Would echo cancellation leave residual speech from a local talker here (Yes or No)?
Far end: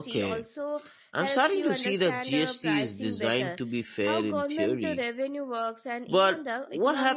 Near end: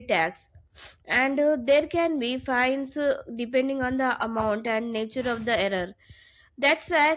Yes